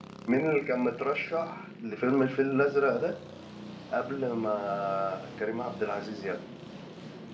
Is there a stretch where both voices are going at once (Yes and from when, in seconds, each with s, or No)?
No